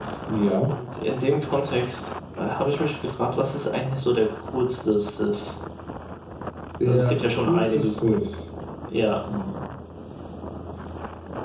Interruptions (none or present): present